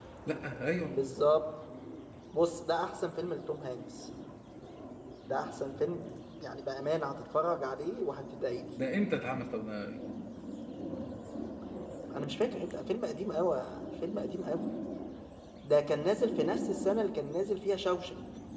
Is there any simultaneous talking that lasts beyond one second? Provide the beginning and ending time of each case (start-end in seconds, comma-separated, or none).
none